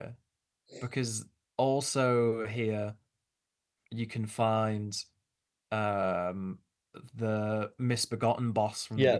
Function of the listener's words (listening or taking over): taking over